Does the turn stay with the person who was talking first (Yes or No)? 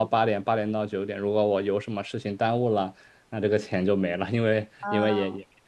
Yes